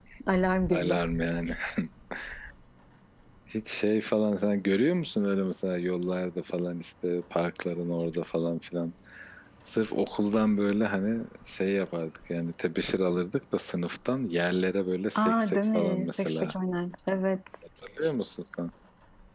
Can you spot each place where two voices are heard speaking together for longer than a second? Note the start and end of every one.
15.2-16.5

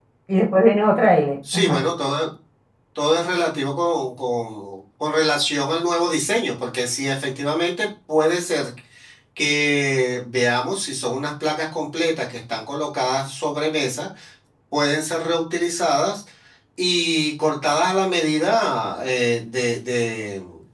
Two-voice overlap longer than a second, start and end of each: none

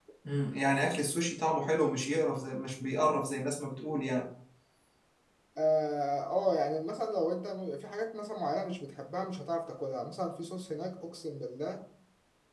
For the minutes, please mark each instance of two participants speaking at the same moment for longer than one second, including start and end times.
none

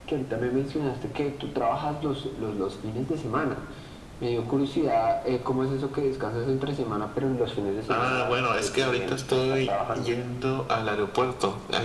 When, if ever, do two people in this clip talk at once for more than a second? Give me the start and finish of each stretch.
7.9-10.1

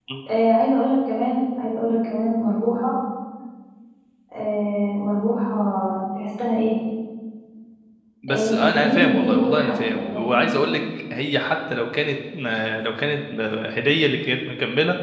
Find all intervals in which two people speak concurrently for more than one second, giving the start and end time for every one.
8.3-10.4

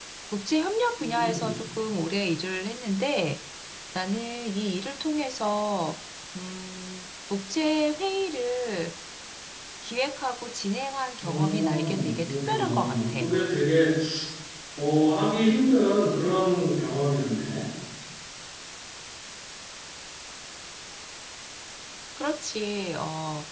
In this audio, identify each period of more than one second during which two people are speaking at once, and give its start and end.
11.2-13.0

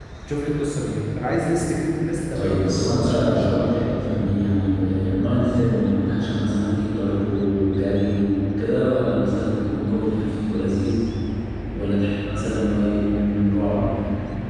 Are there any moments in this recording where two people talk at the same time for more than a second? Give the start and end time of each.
2.4-3.7

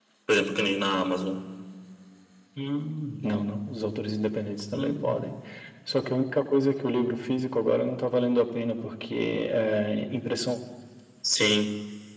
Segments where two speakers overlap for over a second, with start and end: none

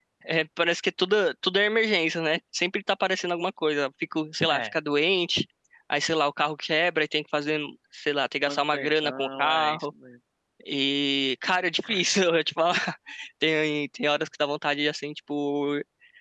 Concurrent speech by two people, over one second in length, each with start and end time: 8.4-9.8

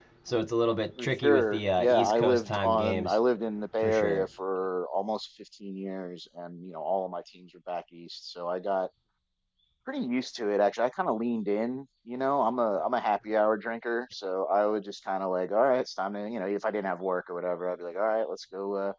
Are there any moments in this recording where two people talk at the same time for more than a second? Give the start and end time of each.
1.0-3.2

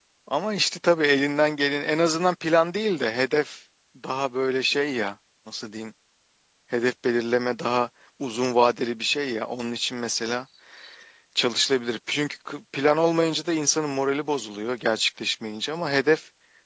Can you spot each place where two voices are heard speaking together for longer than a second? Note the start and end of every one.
none

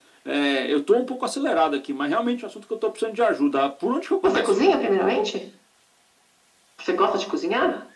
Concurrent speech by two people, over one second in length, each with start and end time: none

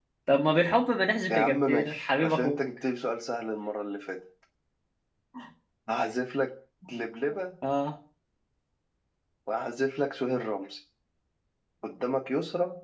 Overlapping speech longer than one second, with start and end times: 1.3-2.6

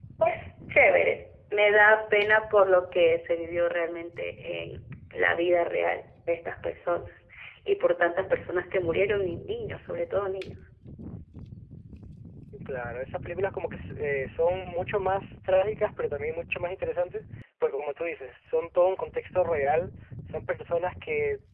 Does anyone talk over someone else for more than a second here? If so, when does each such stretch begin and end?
none

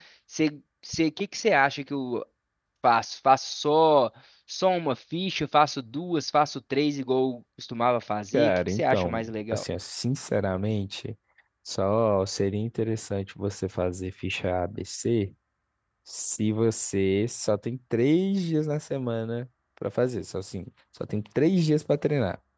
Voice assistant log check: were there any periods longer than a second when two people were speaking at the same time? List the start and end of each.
8.3-9.6

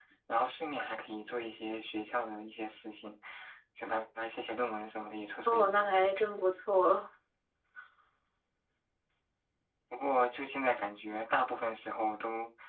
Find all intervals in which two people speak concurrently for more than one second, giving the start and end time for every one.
none

